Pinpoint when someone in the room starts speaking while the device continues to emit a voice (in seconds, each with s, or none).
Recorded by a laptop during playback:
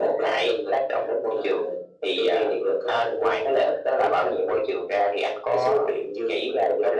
none